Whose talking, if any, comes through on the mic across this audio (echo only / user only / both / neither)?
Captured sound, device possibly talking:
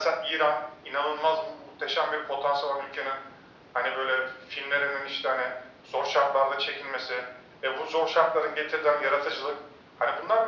echo only